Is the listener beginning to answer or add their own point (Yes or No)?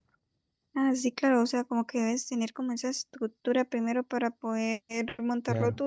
Yes